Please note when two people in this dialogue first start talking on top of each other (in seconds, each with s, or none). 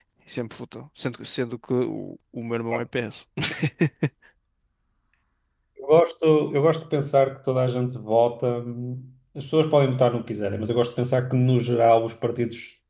none